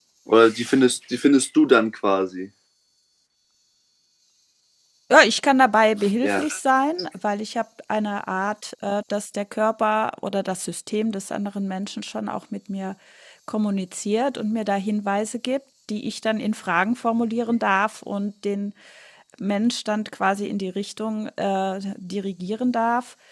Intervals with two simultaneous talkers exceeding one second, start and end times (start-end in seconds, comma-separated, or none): none